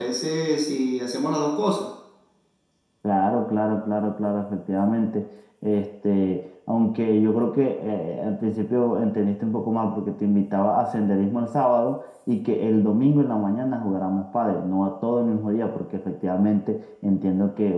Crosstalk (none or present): none